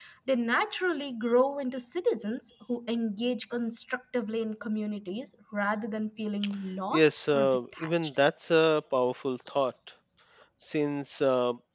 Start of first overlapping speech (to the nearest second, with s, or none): 7 s